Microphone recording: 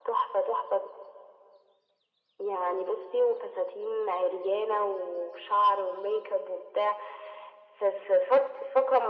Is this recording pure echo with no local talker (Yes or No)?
Yes